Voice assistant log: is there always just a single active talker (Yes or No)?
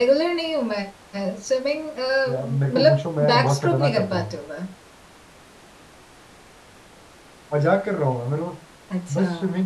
No